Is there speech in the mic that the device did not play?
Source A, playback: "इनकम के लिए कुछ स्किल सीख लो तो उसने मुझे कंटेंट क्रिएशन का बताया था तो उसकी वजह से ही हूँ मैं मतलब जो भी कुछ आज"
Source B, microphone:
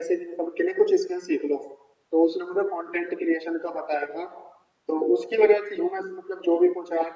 No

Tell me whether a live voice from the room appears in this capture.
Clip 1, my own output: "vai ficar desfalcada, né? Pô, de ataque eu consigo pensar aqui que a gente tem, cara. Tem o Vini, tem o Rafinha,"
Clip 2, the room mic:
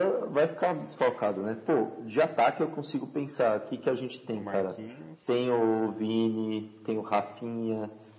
Yes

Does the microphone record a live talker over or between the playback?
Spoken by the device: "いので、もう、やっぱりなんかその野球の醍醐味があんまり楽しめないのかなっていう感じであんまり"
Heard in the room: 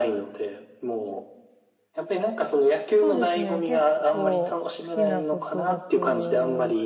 Yes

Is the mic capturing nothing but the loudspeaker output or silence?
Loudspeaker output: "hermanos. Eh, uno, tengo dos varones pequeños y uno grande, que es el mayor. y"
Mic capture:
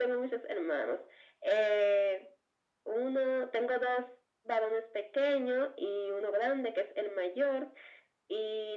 Yes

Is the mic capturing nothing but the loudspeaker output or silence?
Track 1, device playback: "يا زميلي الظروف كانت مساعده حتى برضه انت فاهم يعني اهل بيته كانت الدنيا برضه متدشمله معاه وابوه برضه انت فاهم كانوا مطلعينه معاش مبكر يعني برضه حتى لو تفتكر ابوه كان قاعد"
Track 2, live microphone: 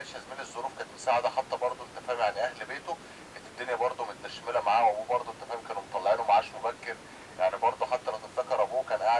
Yes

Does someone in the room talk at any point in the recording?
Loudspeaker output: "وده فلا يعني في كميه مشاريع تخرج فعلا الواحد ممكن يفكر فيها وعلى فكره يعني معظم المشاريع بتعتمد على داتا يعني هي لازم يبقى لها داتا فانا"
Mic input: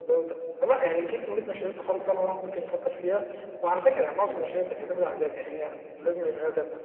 No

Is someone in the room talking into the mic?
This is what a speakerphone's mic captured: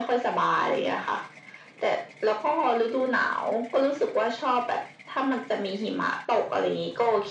No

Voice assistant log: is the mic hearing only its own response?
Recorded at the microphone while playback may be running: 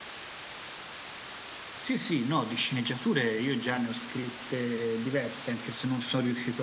No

